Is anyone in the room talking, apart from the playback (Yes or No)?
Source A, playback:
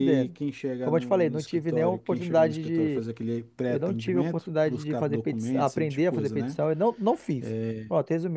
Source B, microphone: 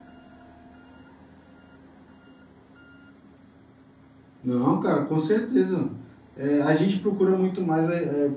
Yes